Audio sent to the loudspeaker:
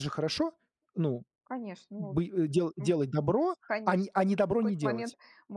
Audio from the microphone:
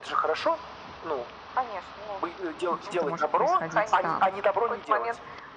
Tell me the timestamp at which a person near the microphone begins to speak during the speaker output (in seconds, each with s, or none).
2.7 s